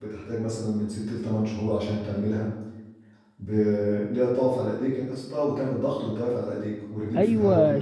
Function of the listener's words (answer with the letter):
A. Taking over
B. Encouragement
A